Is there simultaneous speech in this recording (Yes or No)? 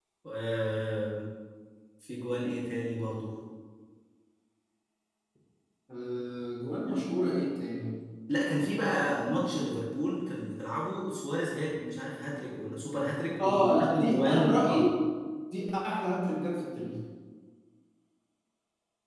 Yes